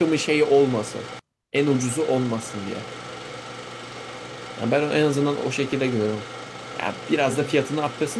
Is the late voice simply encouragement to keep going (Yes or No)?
Yes